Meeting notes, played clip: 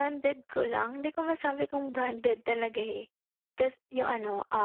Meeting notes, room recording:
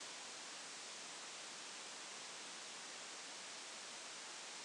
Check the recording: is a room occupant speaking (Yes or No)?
No